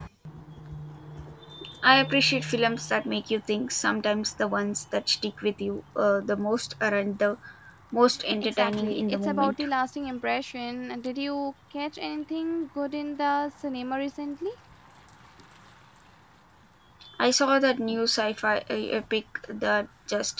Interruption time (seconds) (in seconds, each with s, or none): 8.4 s